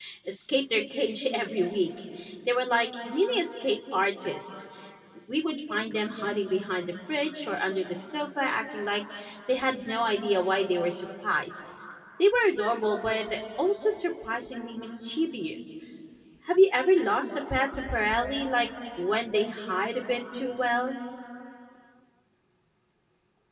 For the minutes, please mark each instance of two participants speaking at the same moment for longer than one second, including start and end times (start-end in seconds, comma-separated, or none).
none